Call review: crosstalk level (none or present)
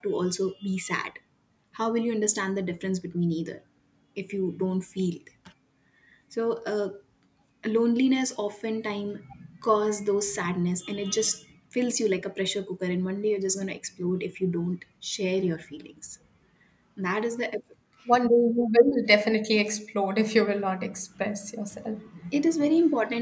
none